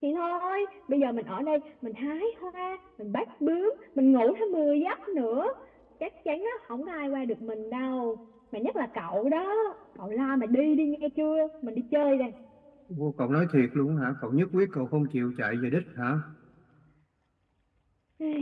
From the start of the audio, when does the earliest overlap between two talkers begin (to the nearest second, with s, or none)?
none